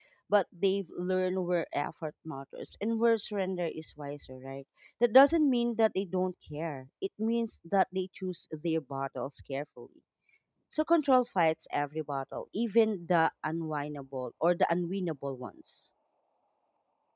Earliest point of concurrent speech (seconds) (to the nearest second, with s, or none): none